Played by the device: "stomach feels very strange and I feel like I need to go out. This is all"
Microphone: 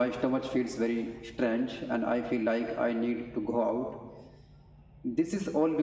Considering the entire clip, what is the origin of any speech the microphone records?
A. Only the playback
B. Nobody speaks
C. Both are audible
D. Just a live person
A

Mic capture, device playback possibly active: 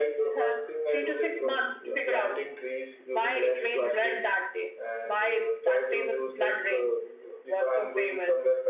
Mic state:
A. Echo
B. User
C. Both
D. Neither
C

